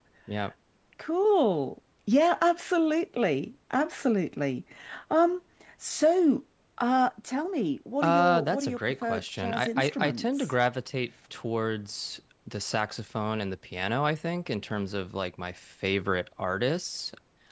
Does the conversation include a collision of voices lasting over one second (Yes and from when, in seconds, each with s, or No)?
Yes, from 8.0 s